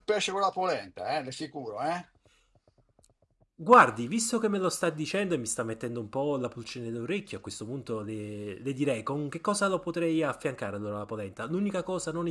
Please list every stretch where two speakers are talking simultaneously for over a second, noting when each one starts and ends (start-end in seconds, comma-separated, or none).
none